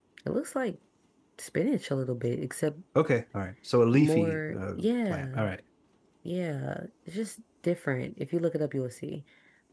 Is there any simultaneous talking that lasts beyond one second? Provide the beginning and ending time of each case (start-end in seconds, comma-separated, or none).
3.9-5.4